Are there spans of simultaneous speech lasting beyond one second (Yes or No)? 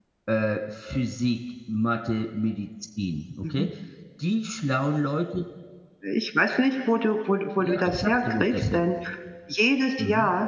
Yes